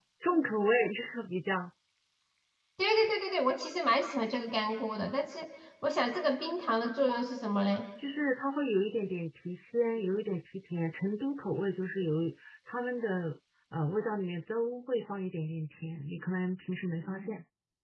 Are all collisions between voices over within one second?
Yes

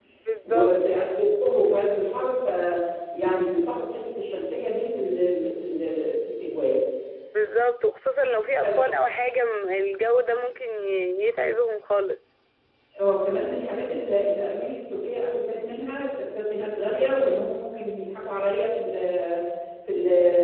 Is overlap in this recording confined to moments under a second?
Yes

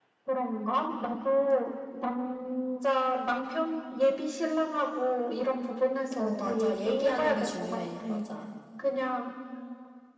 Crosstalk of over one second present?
Yes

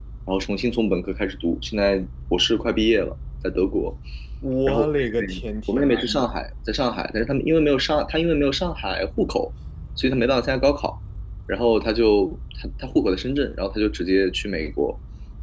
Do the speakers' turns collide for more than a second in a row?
Yes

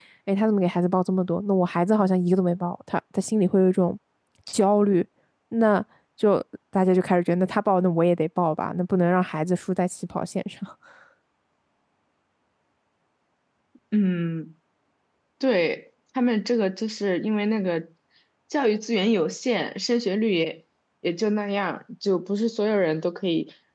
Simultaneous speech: No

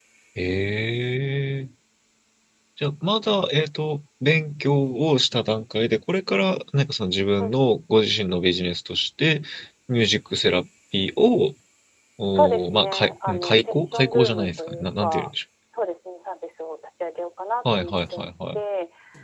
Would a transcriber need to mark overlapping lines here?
Yes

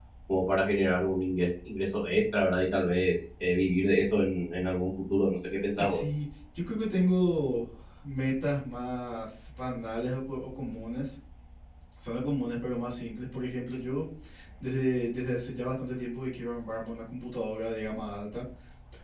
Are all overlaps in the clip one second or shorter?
Yes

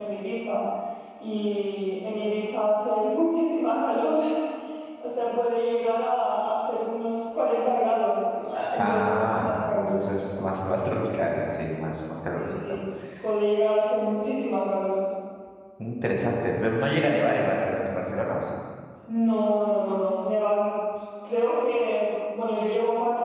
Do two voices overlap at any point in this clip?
Yes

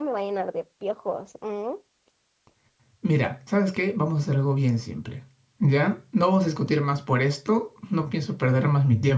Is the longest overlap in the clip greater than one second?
No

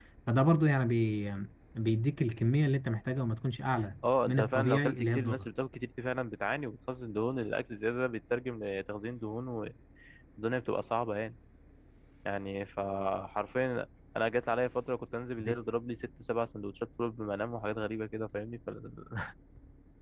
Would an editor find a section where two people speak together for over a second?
Yes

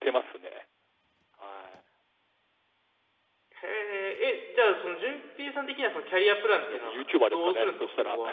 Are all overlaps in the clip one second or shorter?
No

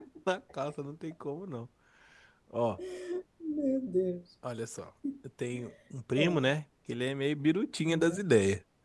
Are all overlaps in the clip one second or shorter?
Yes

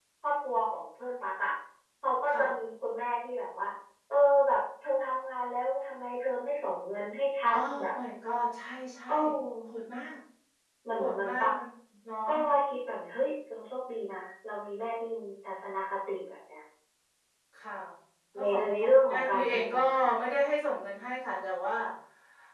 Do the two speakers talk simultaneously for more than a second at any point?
Yes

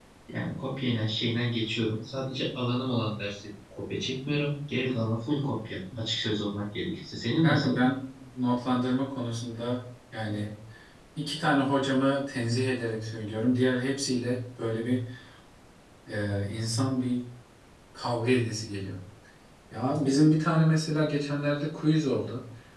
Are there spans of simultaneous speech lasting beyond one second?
No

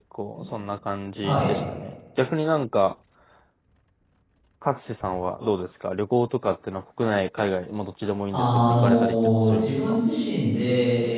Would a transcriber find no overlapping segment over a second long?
No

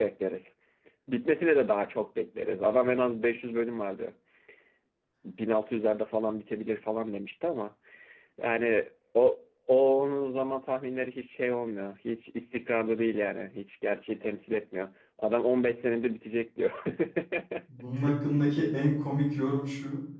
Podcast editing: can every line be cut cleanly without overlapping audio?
Yes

